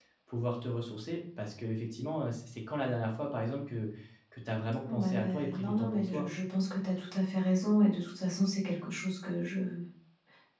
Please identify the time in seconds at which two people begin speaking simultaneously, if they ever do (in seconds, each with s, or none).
4.8 s